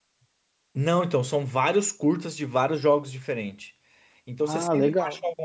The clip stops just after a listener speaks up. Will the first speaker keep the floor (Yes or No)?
Yes